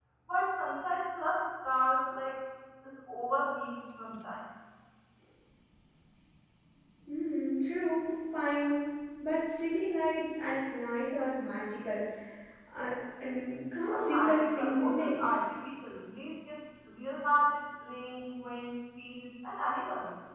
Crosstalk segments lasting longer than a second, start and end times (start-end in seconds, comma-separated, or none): 13.9-15.5